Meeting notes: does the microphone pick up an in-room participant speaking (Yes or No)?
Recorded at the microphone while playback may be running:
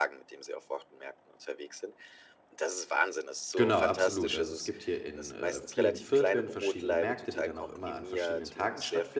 Yes